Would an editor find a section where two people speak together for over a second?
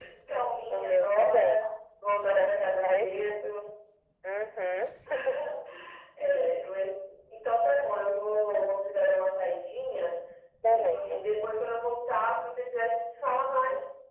Yes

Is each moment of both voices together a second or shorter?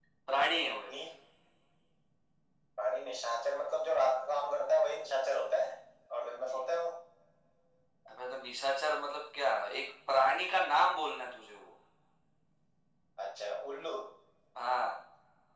Yes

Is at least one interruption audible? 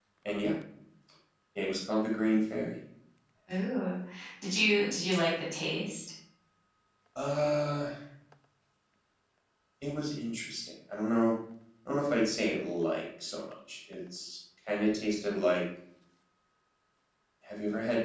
No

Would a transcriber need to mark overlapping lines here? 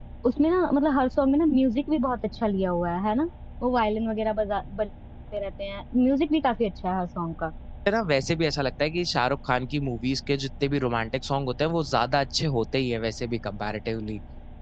No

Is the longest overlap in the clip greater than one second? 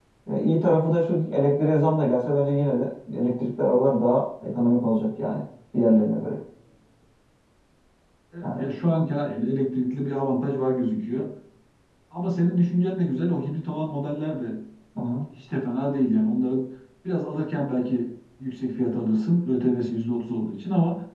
No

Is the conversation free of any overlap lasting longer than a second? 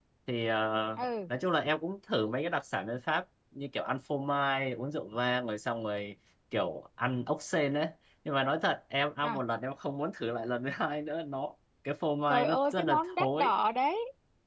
No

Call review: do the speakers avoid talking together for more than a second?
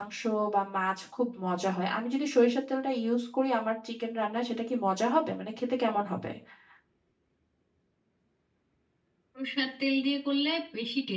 Yes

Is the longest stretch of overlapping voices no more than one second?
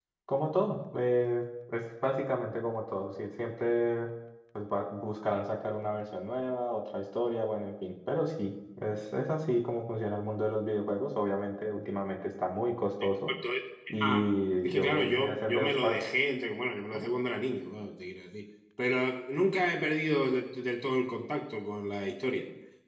No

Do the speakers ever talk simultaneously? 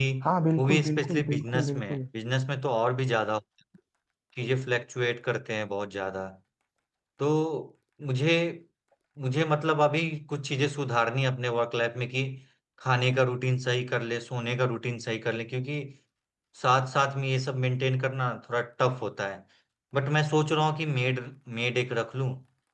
Yes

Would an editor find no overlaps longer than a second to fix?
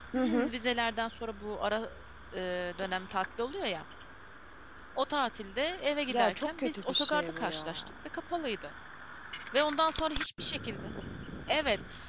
No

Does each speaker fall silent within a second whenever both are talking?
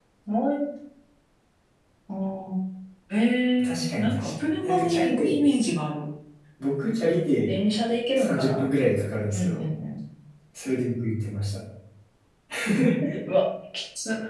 No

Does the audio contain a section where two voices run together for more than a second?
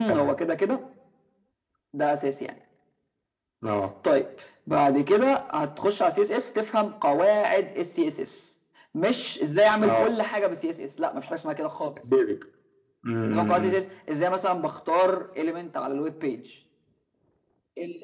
No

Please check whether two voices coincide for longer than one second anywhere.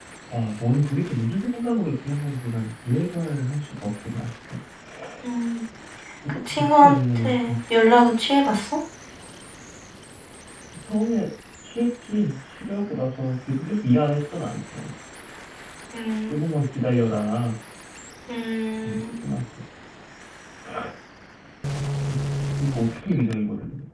Yes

